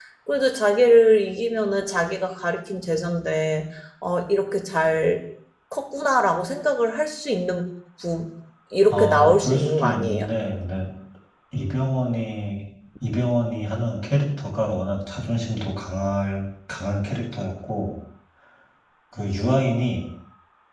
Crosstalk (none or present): present